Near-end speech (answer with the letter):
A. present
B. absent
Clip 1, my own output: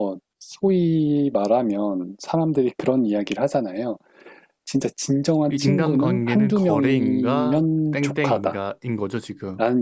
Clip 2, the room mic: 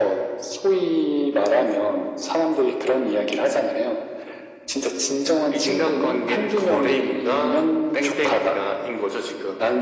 B